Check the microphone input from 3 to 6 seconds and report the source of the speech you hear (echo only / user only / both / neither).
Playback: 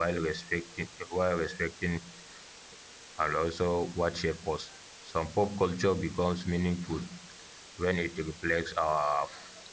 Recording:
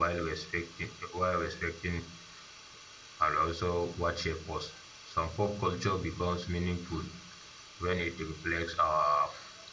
echo only